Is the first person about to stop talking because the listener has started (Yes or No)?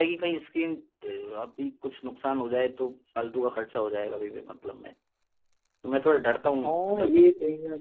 Yes